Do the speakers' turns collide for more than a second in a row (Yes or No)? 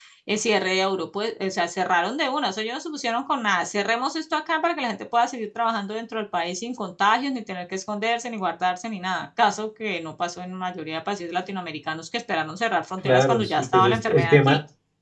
Yes